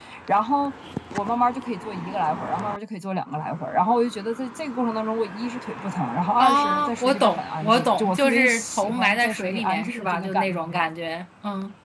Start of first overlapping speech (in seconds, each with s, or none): 6.4 s